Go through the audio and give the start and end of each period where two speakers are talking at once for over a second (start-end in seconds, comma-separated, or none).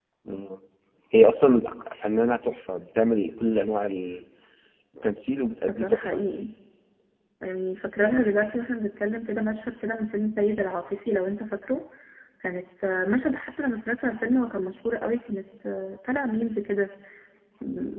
none